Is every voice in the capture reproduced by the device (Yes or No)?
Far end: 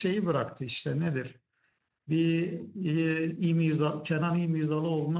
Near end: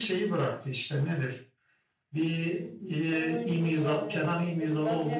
No